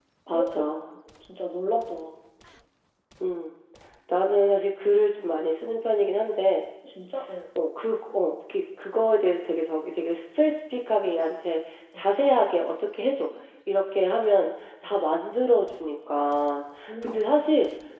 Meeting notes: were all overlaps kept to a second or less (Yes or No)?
Yes